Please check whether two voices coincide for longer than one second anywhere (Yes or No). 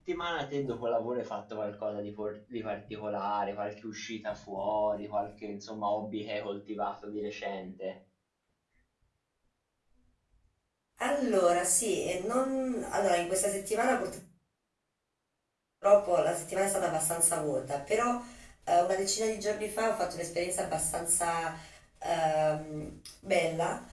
No